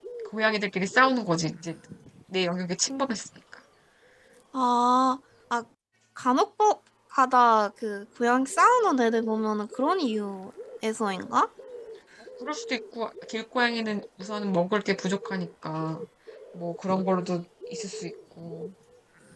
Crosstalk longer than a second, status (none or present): none